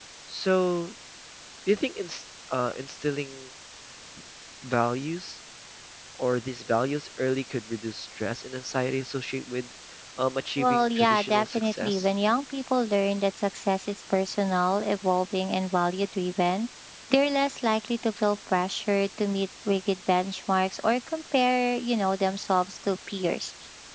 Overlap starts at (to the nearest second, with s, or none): 11 s